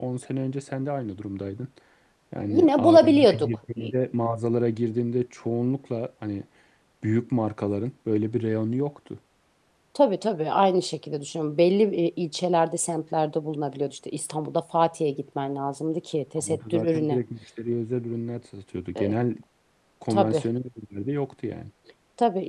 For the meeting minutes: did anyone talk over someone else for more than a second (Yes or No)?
Yes